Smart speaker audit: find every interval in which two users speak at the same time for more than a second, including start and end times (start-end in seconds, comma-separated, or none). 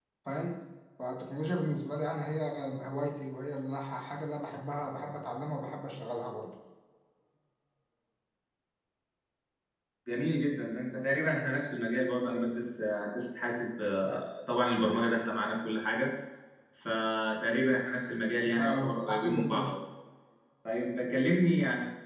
18.4-19.7